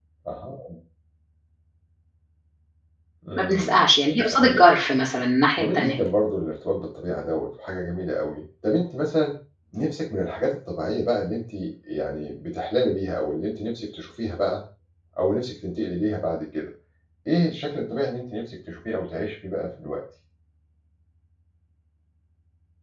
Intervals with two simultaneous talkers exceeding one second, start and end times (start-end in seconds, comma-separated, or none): none